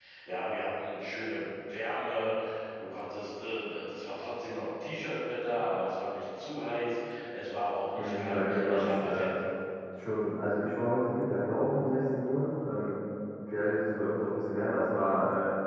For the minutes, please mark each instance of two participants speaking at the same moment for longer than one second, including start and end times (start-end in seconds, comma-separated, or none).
7.9-9.3